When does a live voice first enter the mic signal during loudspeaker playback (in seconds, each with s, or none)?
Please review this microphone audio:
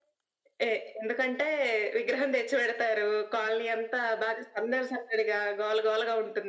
none